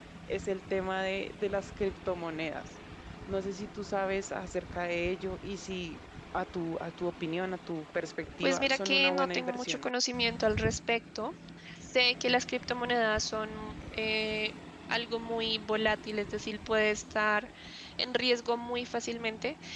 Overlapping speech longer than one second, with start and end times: 8.4-9.9

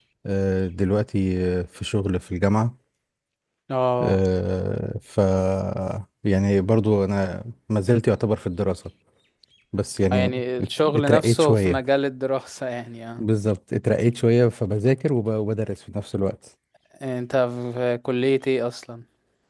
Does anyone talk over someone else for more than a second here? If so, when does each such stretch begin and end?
10.1-11.8

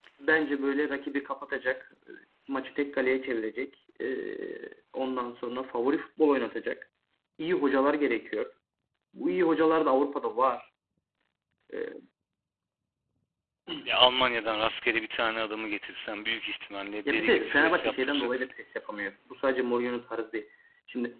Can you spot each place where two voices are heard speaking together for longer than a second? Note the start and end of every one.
17.1-18.5

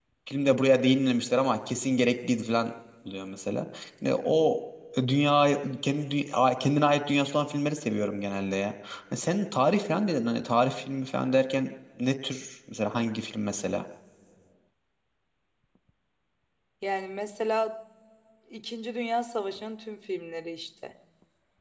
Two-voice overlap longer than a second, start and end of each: none

